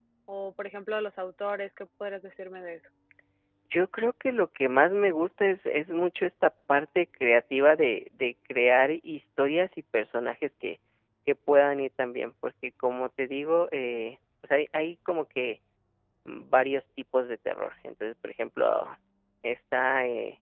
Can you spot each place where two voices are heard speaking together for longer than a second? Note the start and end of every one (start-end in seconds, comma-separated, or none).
none